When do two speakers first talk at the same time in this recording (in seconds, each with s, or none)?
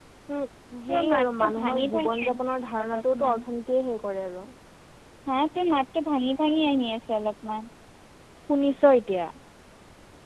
0.9 s